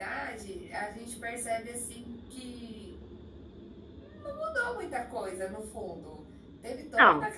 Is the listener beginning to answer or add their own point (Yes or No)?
No